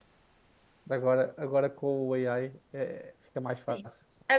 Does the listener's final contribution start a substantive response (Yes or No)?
Yes